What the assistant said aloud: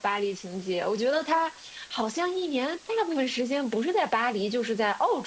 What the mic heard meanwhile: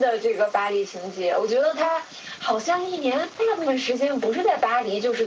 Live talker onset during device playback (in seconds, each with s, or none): none